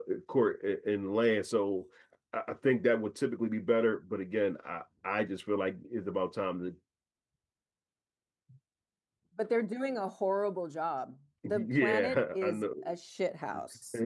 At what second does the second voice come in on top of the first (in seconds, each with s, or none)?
11.4 s